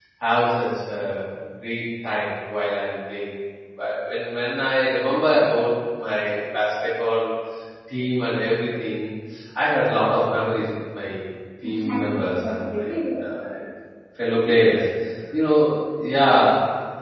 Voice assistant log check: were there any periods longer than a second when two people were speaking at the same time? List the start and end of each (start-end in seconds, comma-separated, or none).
11.6-12.9